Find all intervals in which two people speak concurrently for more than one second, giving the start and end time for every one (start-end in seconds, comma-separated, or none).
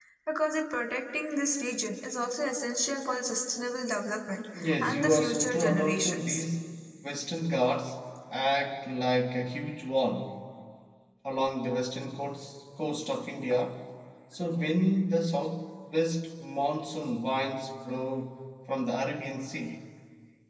4.6-6.4